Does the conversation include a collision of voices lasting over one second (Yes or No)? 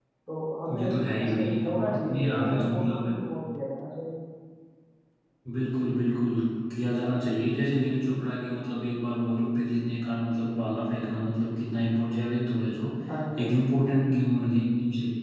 Yes